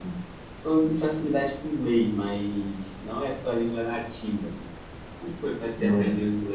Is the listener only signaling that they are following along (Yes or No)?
Yes